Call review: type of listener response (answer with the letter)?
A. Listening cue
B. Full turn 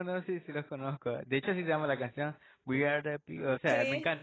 A